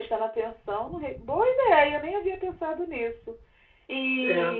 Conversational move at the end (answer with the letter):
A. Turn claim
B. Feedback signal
B